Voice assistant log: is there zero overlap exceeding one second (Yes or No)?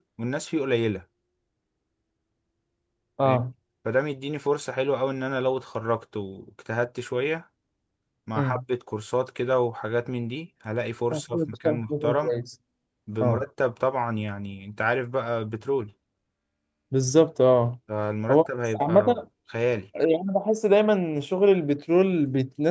No